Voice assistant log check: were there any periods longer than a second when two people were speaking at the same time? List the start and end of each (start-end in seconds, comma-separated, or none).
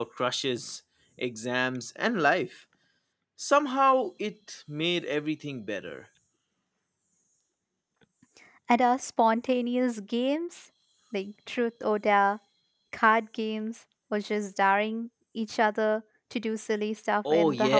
none